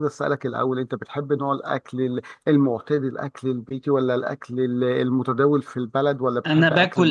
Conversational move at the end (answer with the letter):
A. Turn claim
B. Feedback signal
A